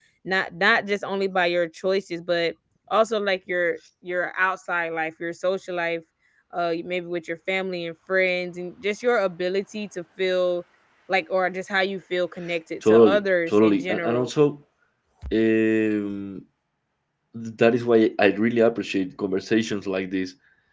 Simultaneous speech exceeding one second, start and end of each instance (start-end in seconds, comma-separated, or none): 12.8-14.3